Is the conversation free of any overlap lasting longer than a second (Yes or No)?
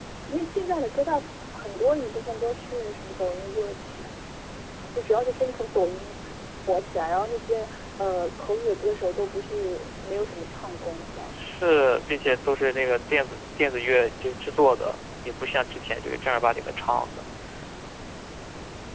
Yes